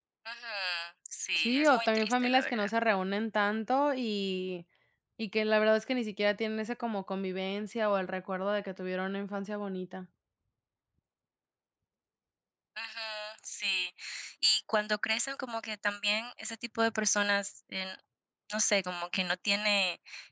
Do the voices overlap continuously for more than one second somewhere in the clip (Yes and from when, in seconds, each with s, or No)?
Yes, from 1.4 s